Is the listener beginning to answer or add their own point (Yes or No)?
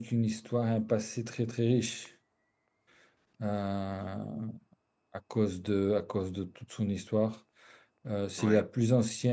No